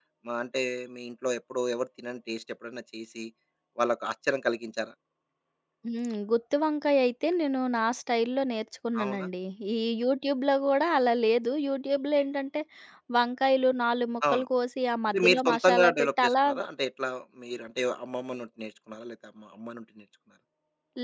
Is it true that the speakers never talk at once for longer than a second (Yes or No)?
No